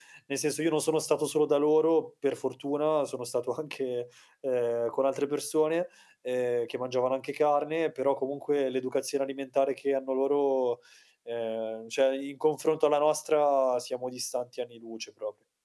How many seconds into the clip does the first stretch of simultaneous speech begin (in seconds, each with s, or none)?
none